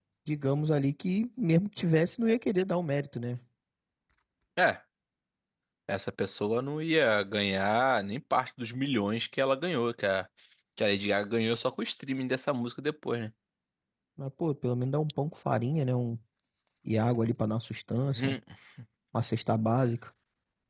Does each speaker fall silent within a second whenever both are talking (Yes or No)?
Yes